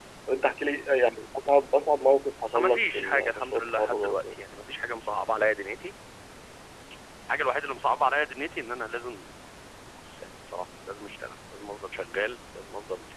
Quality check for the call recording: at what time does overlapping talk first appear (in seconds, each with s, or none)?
2.5 s